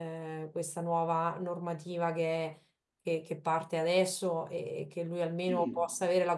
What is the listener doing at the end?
listening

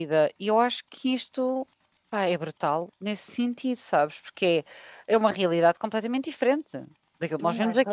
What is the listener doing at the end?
taking over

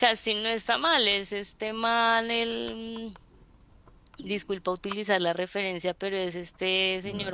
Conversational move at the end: listening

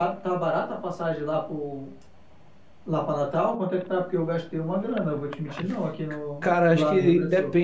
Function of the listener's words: taking over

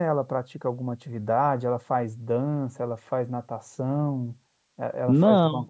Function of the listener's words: listening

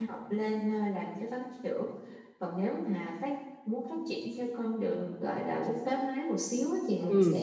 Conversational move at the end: listening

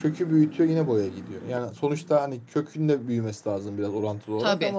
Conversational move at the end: listening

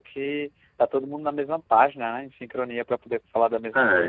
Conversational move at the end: taking over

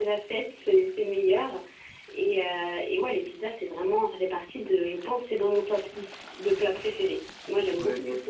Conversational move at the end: taking over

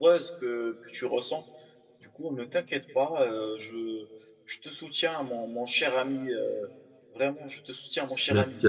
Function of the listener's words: taking over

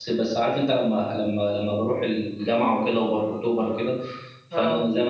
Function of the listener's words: listening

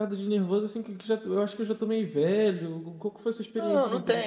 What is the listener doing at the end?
taking over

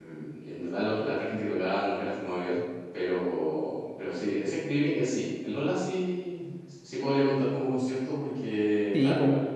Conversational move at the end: taking over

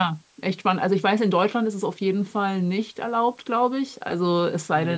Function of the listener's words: taking over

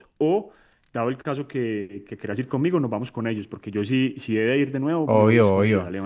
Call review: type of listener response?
taking over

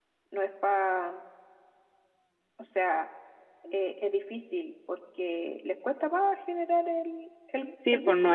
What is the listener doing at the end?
taking over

